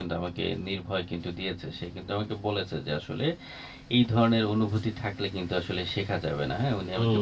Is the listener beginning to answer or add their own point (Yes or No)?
Yes